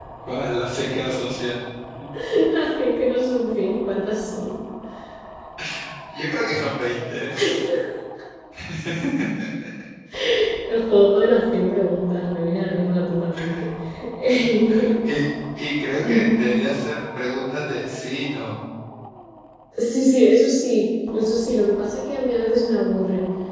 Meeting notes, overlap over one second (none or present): none